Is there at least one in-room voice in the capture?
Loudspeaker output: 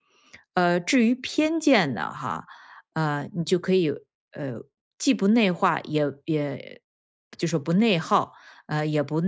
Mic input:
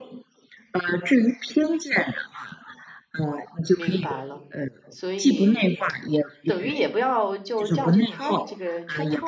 Yes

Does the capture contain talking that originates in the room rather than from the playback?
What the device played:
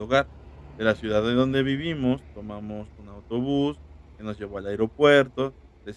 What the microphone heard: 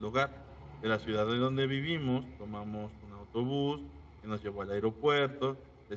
No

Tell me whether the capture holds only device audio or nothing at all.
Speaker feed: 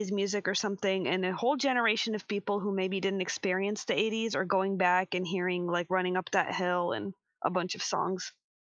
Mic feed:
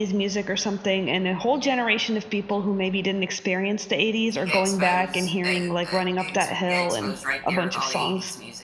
No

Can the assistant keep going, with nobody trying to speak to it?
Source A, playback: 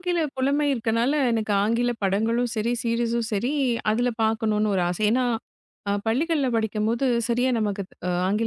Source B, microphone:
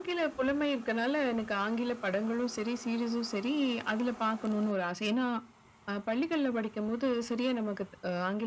Yes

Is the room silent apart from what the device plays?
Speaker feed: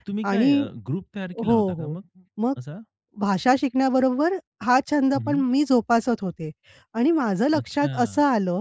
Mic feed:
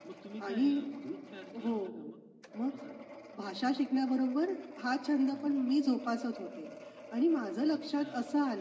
Yes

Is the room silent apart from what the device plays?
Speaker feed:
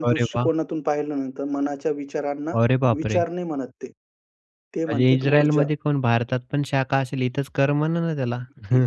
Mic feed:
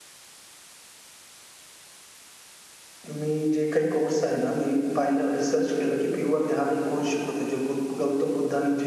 No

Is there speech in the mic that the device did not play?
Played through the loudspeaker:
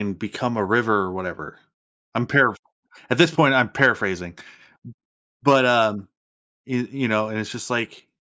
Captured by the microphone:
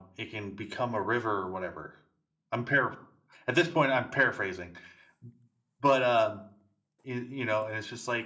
No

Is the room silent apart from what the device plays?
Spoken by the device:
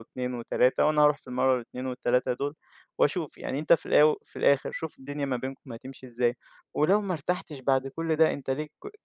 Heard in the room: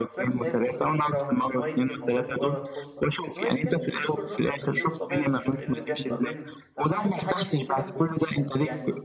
No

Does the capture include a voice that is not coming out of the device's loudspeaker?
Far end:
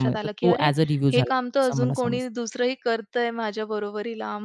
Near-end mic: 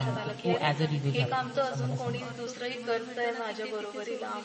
Yes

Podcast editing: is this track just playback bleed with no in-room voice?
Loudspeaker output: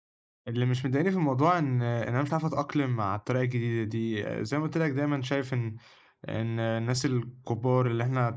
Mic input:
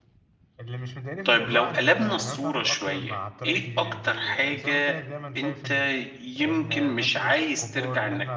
No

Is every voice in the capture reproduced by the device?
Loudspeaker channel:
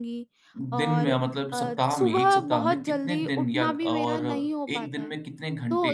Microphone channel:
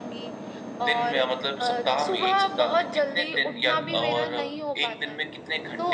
Yes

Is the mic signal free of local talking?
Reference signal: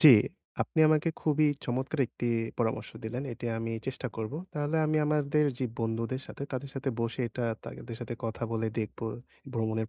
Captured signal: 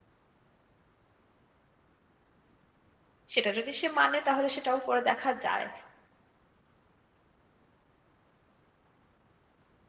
No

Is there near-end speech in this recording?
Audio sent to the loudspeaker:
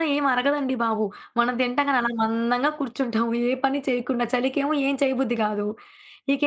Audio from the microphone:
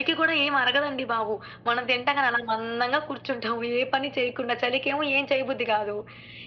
No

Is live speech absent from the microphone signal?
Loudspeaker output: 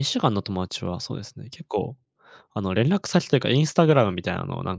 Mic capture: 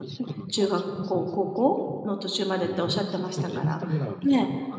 No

